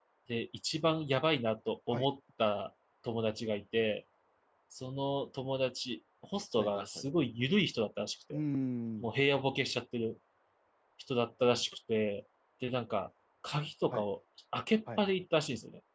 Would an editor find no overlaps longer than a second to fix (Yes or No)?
Yes